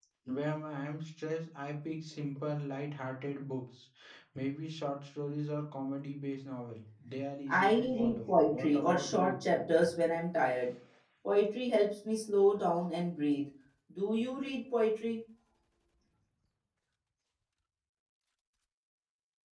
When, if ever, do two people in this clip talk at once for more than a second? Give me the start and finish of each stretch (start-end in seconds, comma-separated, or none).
7.5-9.4